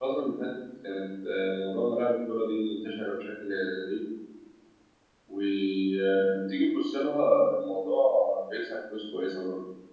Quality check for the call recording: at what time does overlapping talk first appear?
none

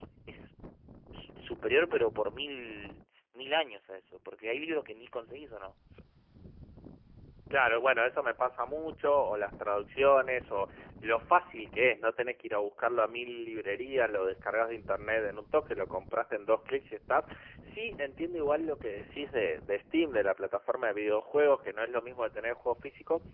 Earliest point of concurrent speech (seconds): none

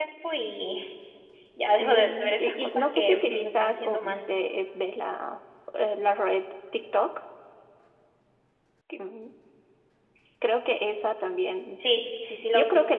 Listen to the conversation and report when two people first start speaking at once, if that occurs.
1.8 s

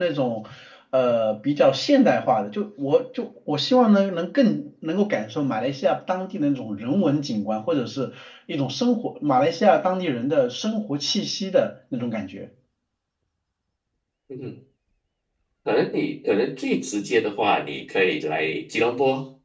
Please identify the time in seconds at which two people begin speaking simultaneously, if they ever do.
none

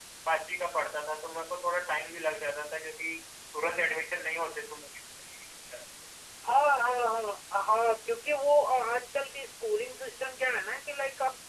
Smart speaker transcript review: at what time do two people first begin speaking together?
none

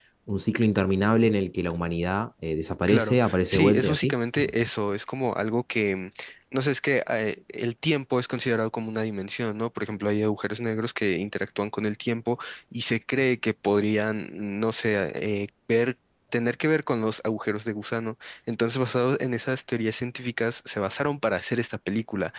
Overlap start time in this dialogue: 2.9 s

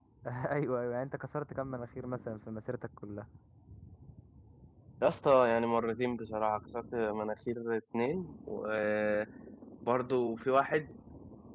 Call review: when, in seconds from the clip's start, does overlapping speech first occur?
none

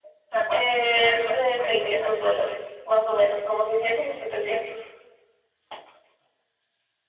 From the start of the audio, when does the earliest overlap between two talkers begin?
0.5 s

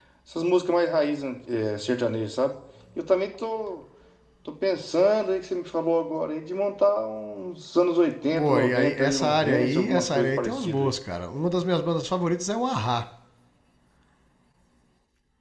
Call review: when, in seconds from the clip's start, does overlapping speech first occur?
8.3 s

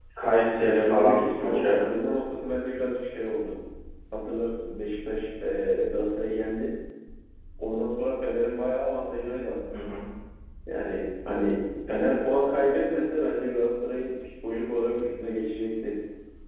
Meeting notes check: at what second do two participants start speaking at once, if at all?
0.6 s

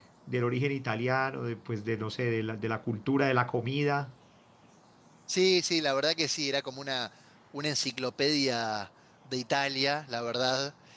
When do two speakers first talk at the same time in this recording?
none

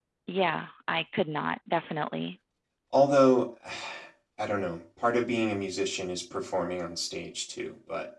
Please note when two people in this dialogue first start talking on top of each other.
none

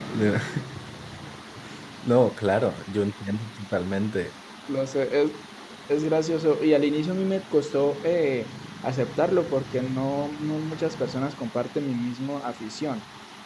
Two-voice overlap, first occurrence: none

